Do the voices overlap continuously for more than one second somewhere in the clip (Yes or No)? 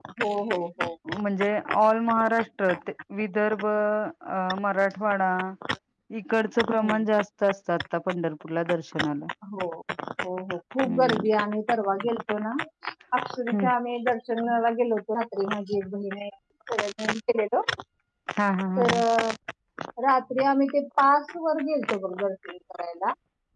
No